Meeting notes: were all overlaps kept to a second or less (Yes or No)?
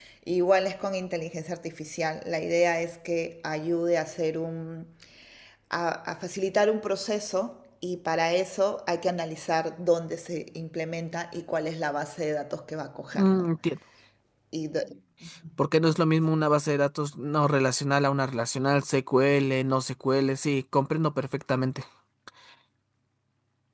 Yes